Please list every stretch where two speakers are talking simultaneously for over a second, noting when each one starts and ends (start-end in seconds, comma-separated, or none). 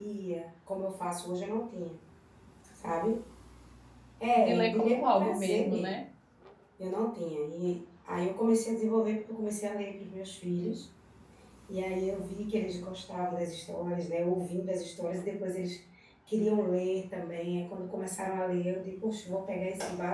4.4-6.0